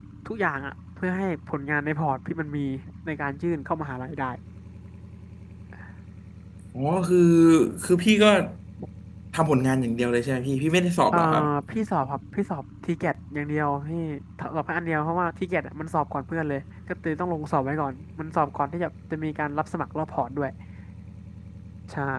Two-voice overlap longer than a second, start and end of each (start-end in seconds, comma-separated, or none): none